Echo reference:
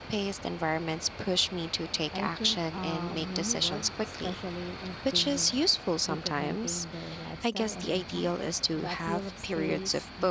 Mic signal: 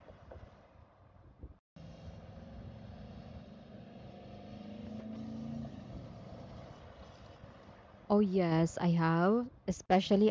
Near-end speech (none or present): present